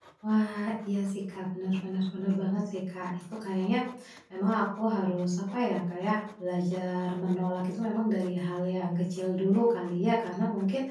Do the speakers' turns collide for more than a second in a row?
No

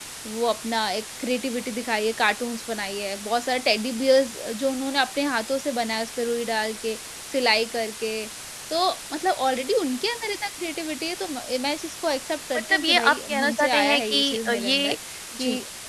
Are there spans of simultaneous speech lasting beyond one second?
Yes, from 12.5 s

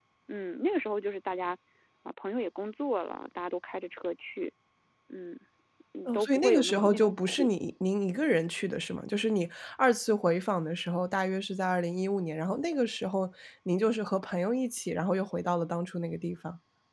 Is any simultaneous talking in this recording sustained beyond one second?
Yes, from 6.0 s

